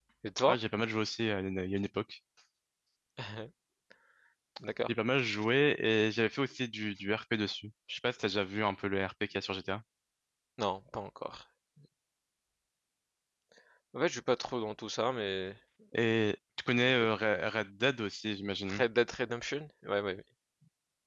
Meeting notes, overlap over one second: none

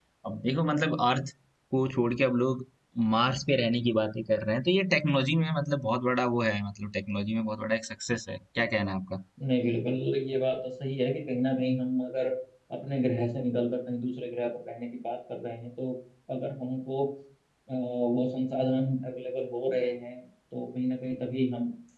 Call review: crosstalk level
none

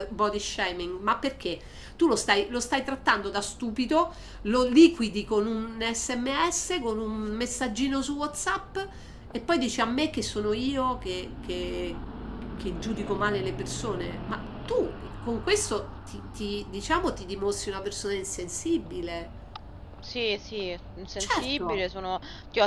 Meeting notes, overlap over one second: none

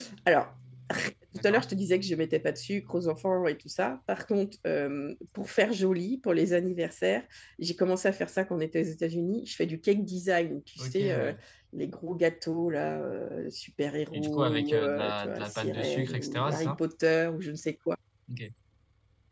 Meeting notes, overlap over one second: present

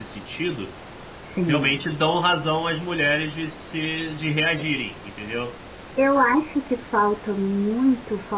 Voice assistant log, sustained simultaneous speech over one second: none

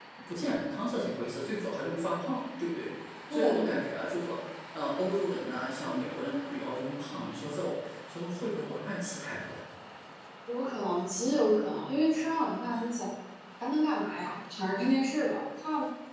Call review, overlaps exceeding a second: none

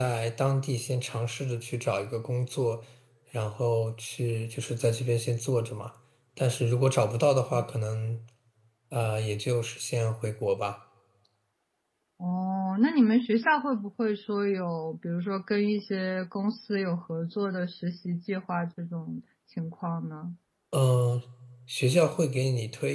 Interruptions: none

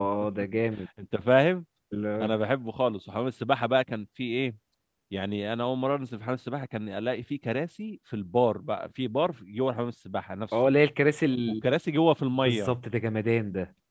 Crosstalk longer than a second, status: none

